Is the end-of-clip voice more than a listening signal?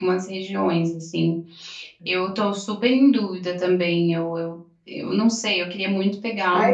Yes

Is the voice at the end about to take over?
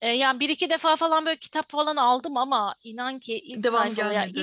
No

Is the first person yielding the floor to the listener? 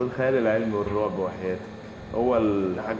No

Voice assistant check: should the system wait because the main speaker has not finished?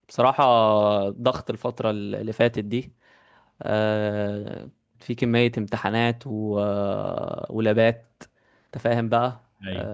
Yes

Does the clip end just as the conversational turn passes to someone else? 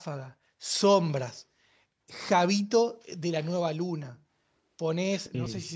No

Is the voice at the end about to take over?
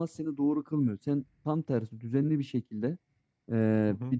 No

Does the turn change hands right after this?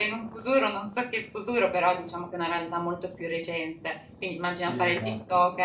No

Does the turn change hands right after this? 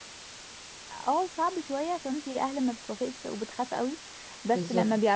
No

